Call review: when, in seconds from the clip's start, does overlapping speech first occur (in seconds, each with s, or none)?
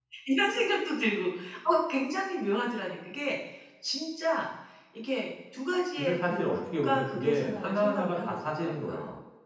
6.0 s